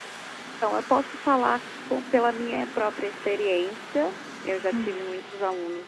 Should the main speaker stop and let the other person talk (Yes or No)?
No